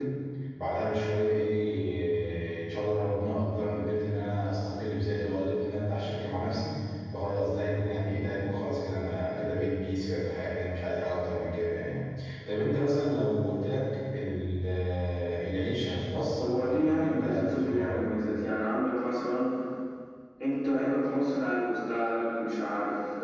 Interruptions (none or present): present